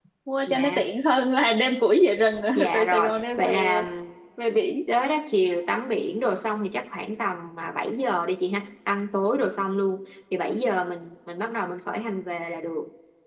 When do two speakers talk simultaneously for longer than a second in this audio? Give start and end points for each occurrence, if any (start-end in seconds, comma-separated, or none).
2.6-3.8